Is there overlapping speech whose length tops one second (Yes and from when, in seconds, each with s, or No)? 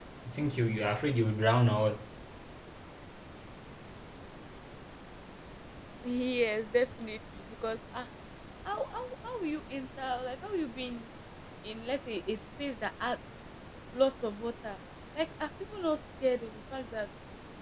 No